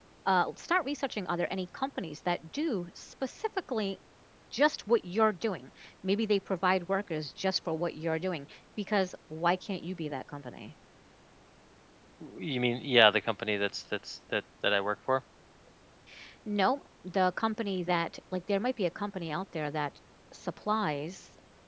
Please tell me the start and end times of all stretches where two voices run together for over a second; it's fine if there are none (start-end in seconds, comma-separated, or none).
none